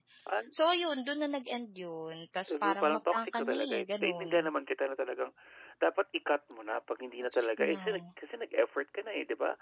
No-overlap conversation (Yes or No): No